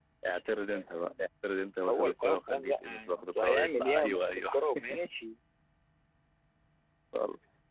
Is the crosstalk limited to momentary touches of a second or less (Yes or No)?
No